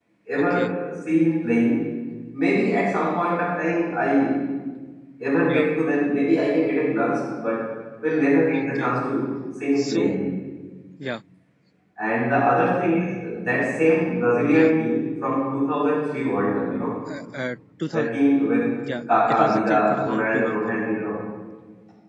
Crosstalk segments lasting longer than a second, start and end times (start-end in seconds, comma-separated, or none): 19.3-20.6